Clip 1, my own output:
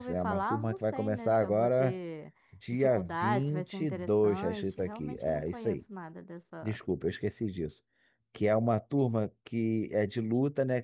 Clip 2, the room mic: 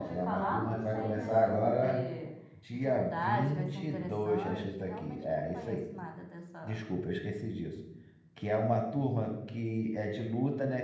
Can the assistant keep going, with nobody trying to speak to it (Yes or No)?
Yes